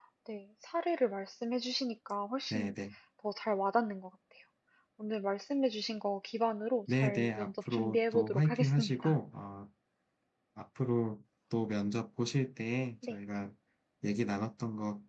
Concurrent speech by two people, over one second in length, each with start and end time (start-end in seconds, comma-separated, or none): 6.9-9.2